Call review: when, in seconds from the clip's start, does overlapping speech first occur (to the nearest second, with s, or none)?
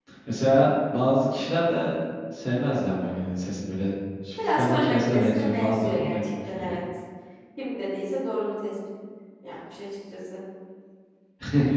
4 s